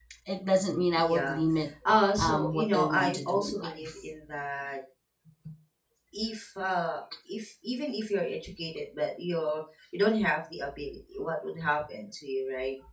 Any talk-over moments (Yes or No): Yes